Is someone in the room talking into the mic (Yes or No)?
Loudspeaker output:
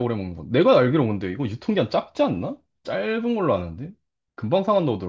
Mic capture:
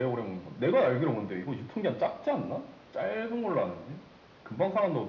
No